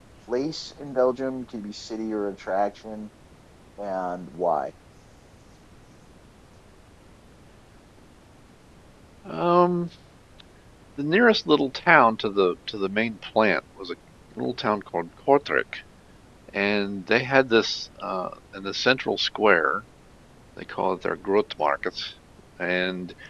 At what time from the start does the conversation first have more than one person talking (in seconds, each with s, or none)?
none